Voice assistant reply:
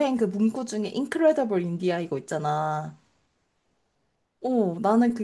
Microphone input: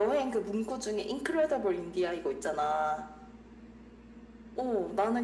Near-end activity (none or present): none